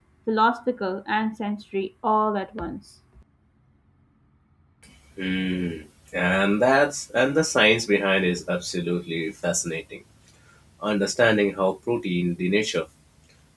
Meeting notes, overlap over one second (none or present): none